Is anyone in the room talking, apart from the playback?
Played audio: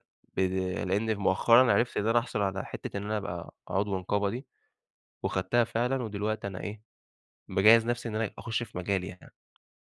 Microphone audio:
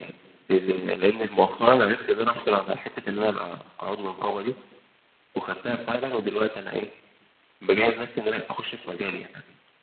No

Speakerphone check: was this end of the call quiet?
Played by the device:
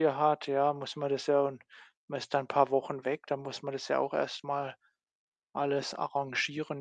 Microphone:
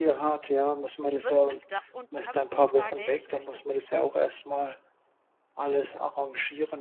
No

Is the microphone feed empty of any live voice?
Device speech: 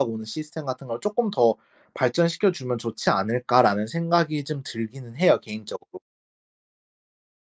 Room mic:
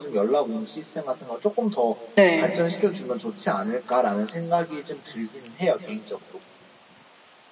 No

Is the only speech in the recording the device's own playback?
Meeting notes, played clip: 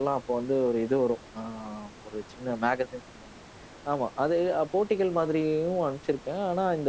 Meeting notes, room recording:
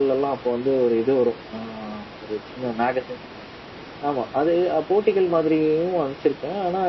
Yes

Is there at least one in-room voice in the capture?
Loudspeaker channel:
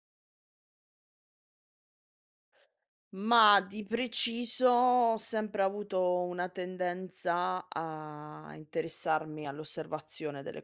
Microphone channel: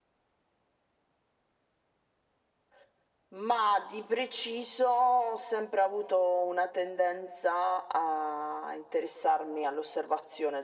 No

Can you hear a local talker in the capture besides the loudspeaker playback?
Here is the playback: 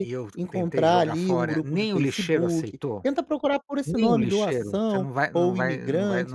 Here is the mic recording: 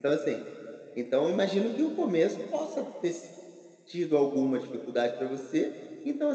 Yes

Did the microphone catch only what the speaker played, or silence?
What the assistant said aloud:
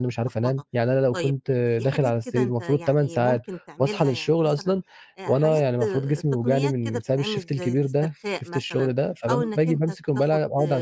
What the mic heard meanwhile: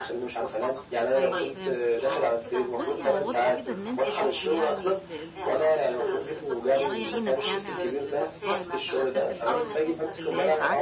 No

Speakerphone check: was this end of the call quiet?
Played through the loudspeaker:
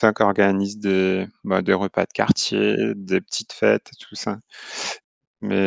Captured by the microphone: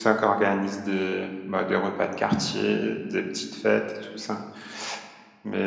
Yes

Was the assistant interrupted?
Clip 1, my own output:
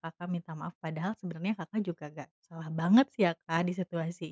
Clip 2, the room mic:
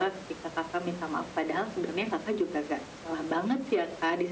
No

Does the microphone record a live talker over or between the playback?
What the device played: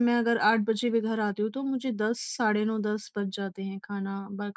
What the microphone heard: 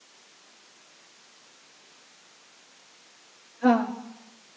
Yes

